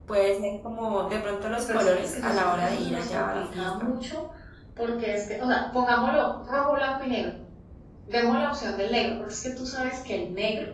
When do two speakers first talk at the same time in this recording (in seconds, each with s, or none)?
1.7 s